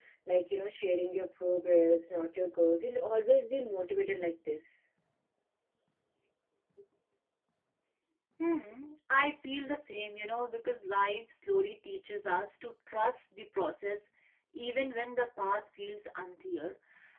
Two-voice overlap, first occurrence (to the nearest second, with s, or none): none